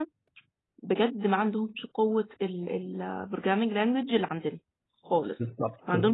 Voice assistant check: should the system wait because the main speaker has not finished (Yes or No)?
Yes